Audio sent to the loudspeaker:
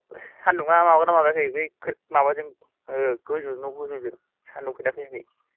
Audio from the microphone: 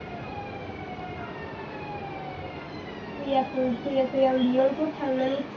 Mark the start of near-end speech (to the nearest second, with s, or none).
3 s